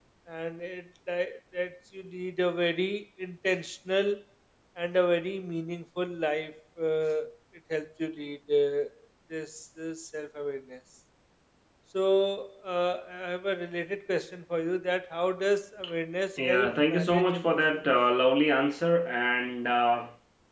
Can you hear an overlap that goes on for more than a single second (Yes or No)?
Yes